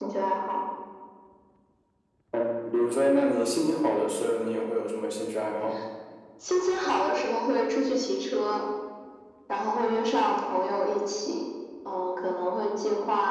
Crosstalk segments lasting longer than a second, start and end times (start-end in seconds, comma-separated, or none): none